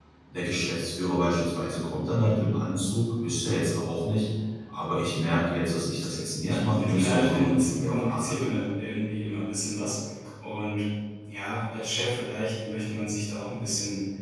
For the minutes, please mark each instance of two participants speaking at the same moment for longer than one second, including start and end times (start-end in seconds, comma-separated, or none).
6.4-8.4